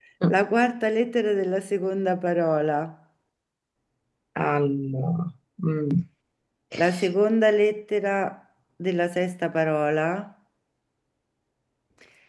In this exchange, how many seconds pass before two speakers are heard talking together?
none

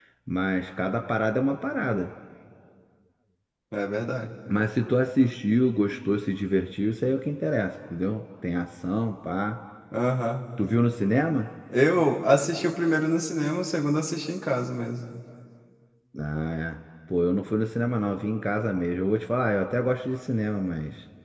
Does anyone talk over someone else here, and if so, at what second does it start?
none

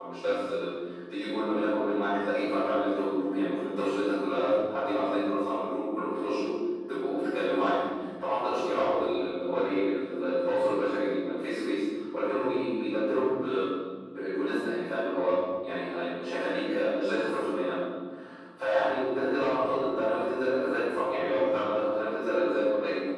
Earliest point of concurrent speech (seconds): none

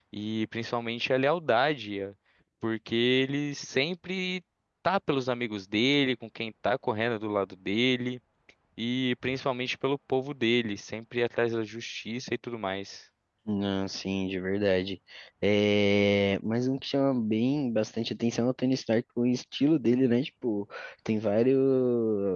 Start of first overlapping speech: none

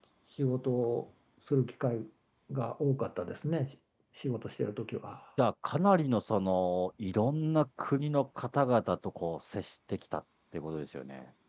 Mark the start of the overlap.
none

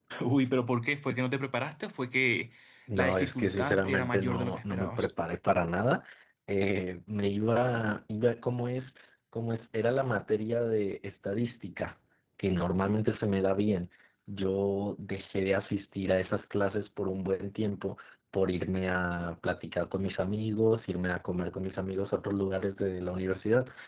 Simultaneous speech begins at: 3.0 s

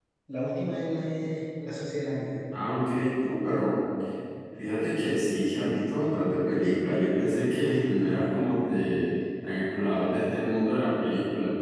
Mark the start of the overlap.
none

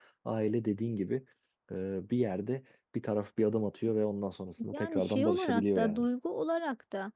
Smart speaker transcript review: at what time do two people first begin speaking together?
4.6 s

